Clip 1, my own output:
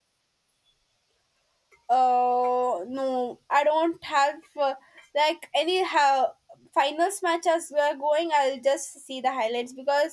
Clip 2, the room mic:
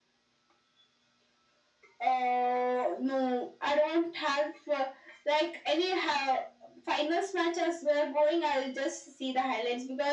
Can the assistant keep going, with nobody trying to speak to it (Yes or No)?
Yes